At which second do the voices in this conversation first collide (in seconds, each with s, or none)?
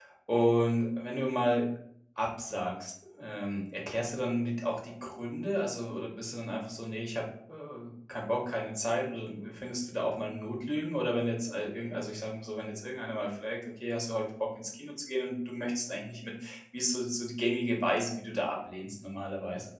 none